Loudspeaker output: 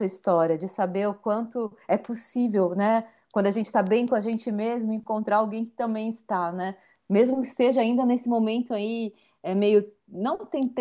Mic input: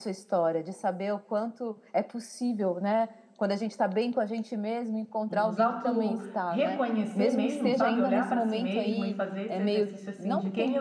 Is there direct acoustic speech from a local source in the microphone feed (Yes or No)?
Yes